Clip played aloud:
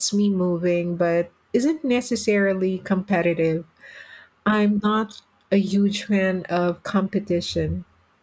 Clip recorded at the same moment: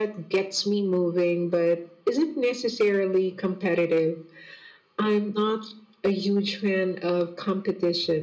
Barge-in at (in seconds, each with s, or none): none